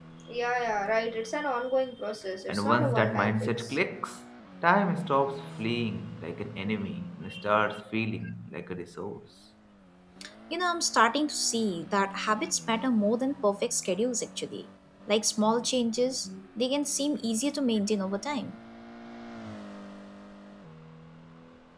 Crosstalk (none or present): present